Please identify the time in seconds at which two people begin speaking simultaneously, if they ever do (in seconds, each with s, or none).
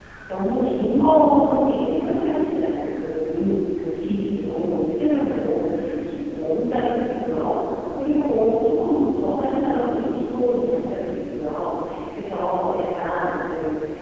none